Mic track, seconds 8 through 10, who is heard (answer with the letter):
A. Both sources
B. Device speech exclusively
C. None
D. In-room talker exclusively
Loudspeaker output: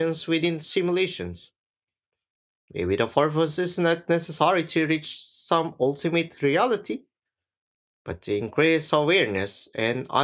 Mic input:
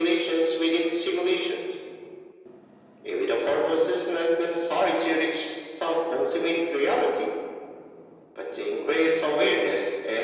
B